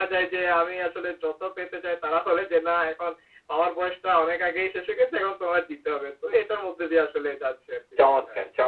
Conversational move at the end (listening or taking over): taking over